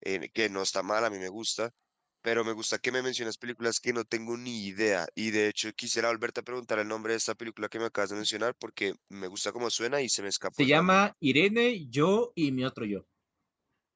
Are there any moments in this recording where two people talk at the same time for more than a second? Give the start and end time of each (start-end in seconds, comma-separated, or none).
none